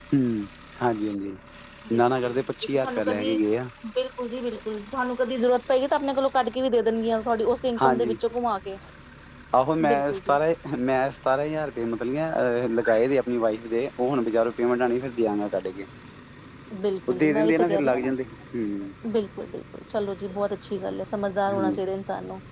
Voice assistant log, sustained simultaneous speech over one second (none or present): present